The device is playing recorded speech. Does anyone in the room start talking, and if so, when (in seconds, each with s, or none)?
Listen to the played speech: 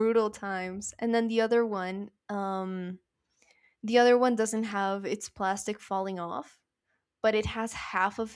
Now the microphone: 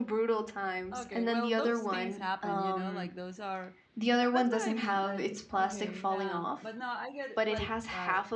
0.9 s